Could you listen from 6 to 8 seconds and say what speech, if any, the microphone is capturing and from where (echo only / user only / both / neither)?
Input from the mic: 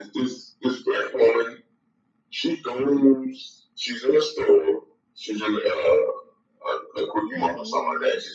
both